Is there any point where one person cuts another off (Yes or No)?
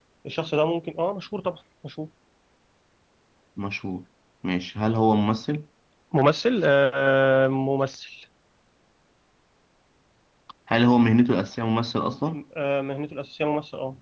No